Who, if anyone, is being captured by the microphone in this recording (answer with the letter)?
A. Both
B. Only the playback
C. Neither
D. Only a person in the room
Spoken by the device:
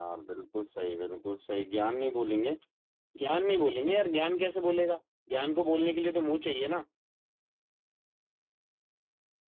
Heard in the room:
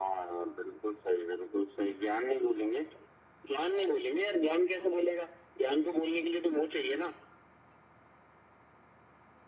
B